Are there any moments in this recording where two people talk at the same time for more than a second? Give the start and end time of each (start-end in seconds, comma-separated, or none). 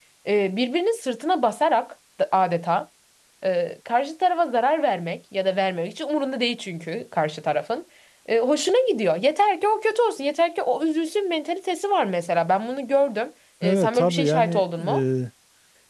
13.6-15.0